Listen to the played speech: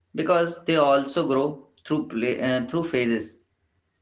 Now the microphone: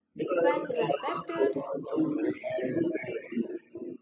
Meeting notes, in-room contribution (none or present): present